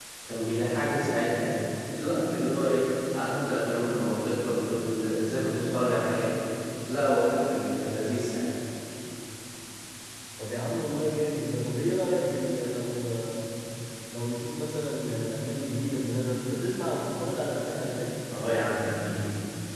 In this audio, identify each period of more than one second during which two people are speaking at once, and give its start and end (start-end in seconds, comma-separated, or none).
none